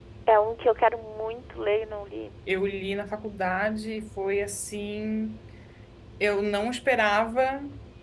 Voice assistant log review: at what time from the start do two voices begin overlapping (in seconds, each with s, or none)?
none